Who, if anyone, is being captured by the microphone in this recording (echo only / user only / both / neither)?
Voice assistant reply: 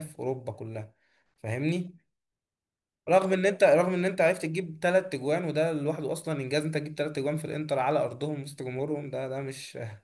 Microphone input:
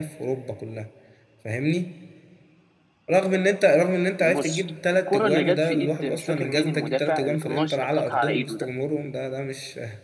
both